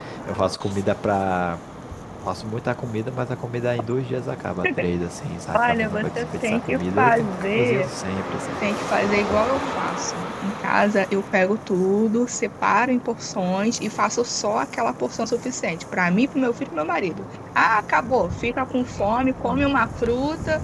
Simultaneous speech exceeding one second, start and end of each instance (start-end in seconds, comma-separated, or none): 5.6-7.9